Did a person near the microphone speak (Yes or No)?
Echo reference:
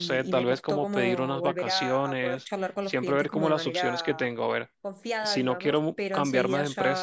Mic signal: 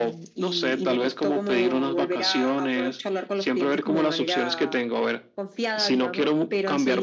No